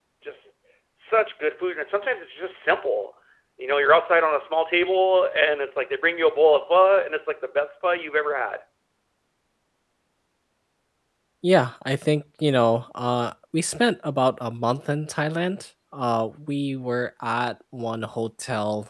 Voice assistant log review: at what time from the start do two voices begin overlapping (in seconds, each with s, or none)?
none